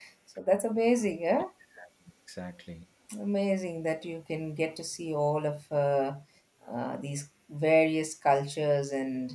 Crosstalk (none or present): none